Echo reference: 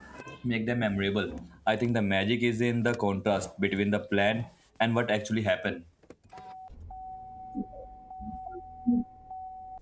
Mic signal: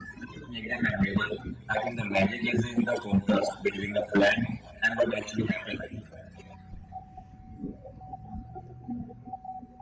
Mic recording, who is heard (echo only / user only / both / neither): echo only